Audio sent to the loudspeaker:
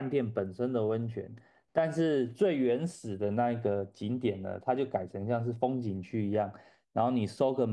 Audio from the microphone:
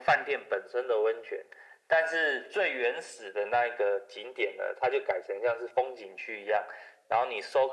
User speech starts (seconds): none

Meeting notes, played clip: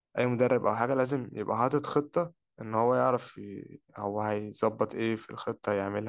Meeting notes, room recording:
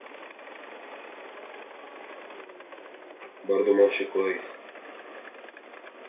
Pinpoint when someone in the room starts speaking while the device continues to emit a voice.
3 s

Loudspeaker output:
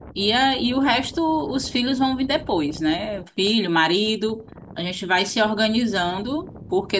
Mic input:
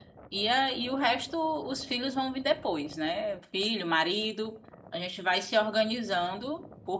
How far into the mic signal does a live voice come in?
none

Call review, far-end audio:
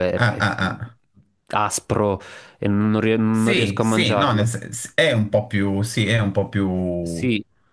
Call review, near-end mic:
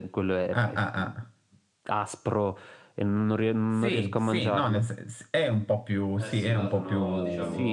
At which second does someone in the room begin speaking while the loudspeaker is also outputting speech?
6 s

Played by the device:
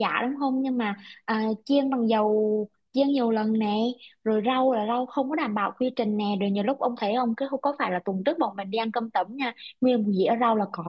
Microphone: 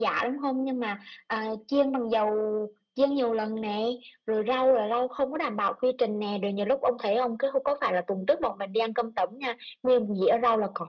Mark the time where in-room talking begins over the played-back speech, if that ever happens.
none

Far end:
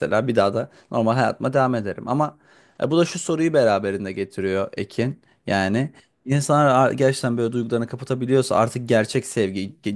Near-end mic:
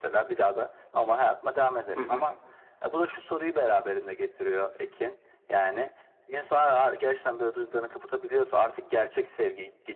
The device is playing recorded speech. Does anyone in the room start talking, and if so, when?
2 s

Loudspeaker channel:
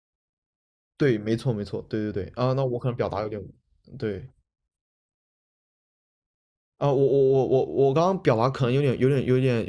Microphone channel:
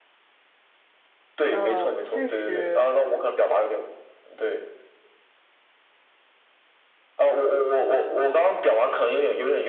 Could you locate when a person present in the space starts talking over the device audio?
1 s

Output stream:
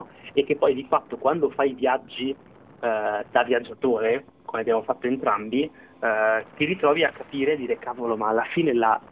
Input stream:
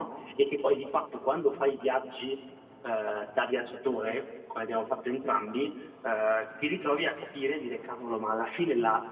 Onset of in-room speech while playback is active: none

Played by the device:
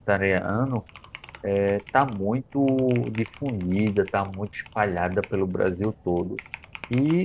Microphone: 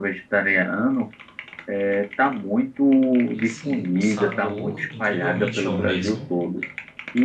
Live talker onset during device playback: 3 s

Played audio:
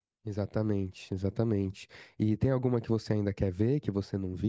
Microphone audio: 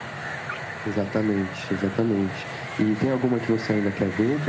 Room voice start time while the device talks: none

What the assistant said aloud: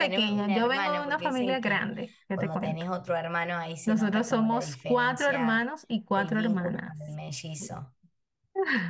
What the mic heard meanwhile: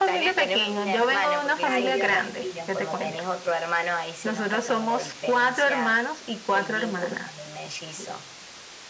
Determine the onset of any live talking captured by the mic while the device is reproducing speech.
2 s

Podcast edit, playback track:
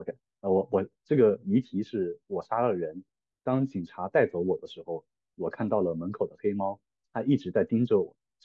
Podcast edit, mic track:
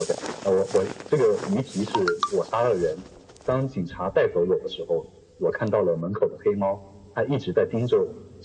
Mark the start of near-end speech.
none

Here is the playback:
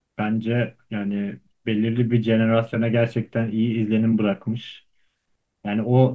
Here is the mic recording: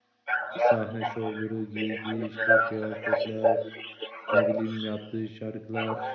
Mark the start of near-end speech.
1 s

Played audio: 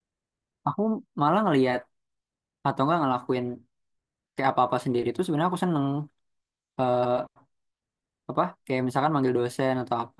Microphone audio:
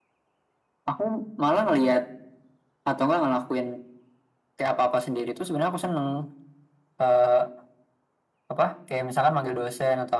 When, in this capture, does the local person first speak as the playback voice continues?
none

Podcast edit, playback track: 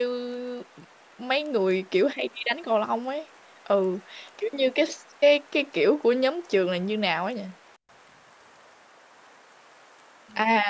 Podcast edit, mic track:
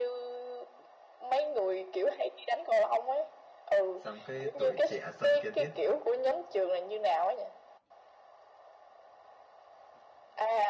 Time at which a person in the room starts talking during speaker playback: 4 s

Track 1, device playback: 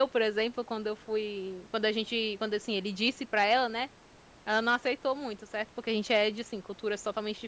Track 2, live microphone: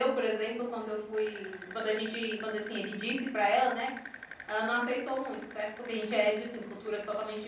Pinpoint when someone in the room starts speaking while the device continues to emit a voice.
none

